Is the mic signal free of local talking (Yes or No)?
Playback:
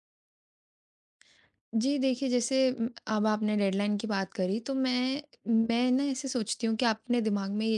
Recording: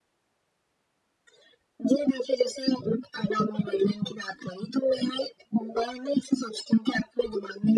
Yes